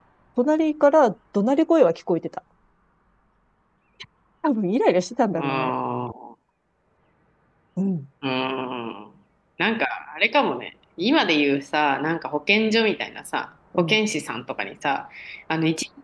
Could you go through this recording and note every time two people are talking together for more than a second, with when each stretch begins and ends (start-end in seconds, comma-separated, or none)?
none